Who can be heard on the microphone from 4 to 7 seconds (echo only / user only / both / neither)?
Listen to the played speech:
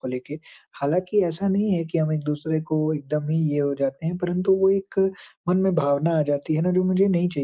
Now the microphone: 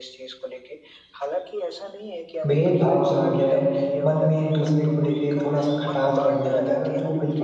both